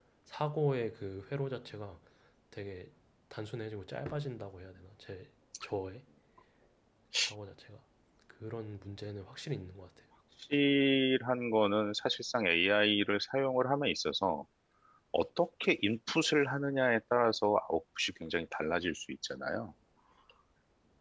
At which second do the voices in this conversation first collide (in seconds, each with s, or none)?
none